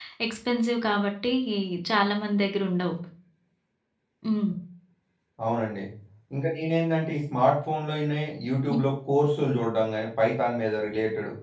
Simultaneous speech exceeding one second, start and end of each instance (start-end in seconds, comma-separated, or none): none